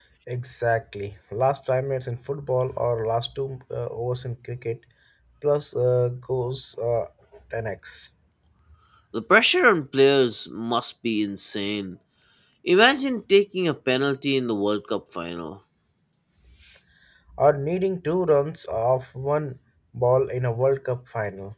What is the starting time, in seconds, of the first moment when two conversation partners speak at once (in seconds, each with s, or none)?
none